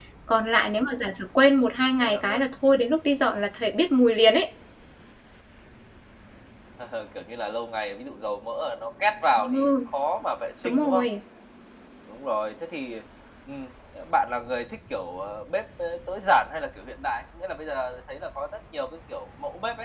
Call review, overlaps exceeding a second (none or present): none